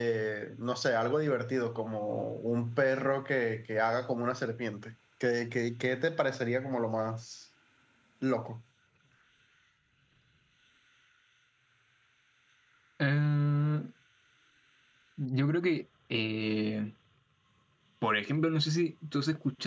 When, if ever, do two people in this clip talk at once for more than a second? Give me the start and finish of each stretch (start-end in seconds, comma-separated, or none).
none